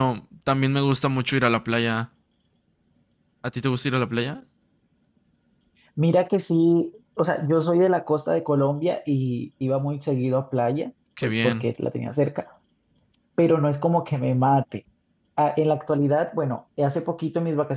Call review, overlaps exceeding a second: none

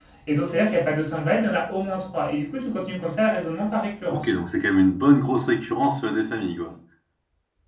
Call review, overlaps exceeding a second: none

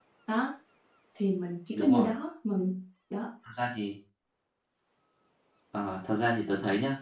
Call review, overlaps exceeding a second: none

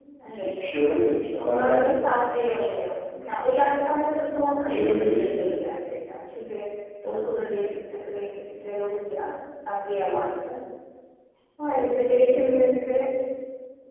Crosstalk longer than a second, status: present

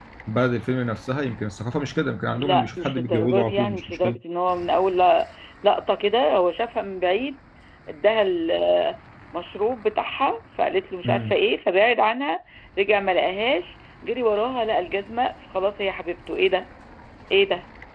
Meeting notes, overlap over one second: present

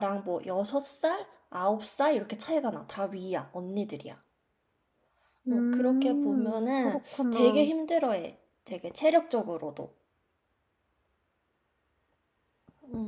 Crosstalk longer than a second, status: present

